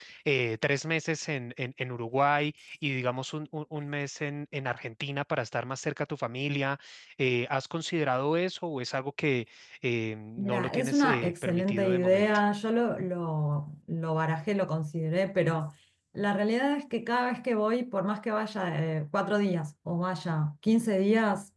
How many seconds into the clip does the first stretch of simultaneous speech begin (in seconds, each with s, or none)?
10.4 s